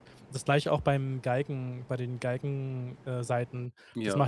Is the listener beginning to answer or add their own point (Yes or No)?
No